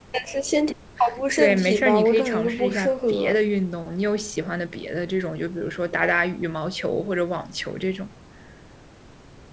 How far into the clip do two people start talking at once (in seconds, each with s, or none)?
1.4 s